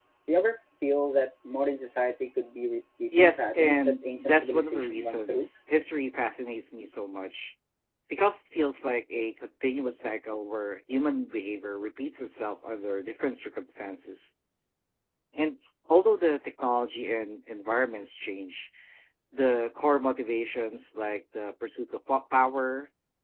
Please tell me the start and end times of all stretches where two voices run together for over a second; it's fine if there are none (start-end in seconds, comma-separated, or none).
3.2-5.5